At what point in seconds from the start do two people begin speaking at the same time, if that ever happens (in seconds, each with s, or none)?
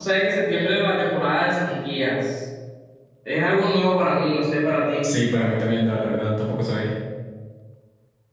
none